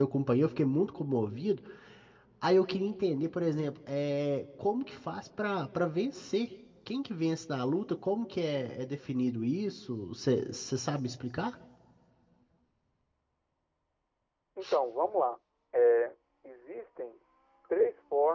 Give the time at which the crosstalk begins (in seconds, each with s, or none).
none